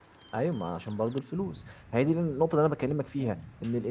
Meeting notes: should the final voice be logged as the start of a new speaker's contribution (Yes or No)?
No